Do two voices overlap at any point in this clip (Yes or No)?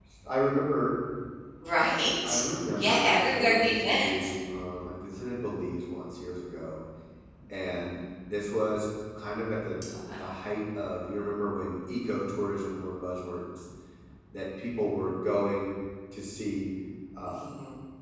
Yes